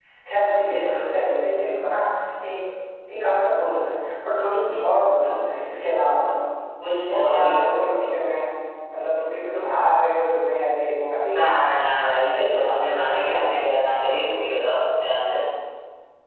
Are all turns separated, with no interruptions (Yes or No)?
No